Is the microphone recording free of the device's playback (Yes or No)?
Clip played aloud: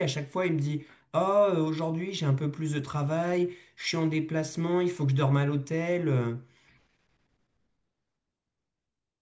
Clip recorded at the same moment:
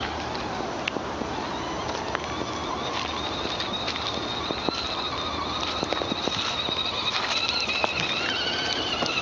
Yes